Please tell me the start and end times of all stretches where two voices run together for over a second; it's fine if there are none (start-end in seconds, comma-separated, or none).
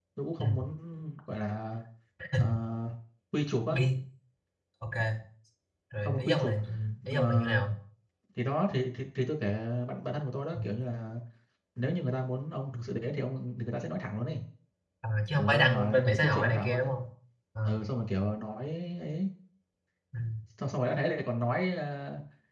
15.4-16.9